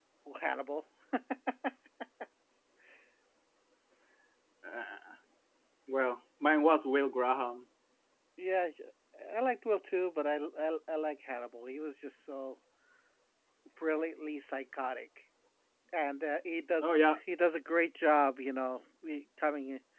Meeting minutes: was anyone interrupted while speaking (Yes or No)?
No